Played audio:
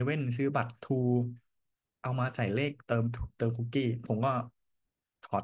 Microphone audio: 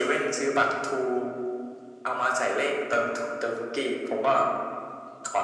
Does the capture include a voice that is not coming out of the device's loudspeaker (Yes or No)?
No